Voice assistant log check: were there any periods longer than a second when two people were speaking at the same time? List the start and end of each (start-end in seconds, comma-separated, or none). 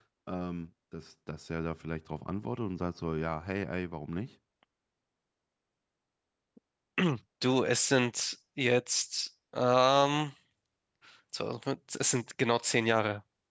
none